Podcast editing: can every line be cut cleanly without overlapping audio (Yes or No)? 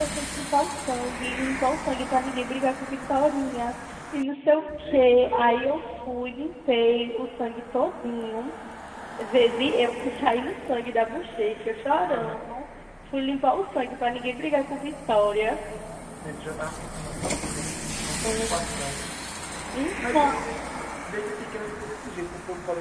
No